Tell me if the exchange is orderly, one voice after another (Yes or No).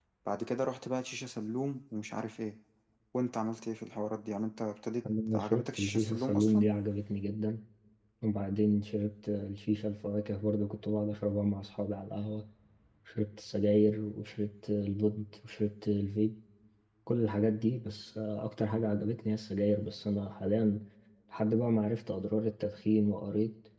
No